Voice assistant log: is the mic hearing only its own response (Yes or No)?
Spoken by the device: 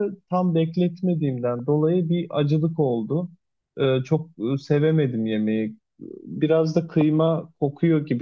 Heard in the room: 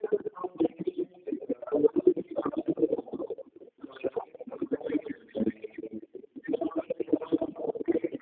Yes